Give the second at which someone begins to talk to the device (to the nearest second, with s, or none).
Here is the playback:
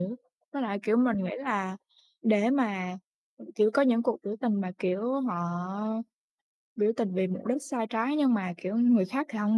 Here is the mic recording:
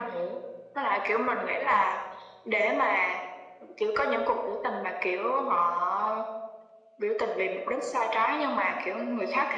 none